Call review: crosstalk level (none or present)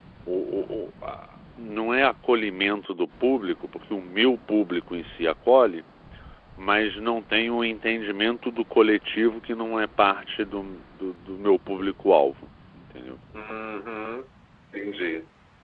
none